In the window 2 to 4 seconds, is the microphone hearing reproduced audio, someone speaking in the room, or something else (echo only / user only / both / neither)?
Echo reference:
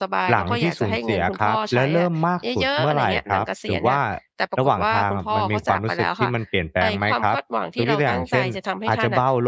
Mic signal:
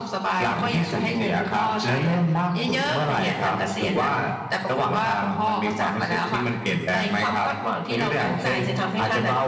echo only